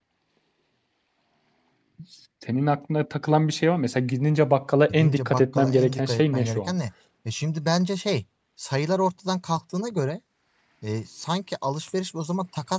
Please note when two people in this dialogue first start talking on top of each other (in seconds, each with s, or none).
4.9 s